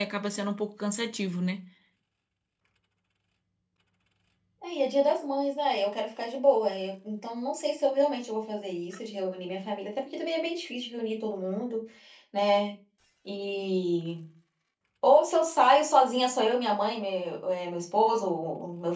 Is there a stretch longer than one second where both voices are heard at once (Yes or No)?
No